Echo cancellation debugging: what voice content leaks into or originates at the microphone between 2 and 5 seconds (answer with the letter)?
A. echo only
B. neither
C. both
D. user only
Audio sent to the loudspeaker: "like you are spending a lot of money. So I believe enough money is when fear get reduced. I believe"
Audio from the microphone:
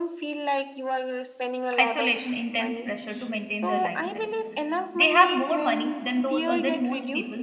C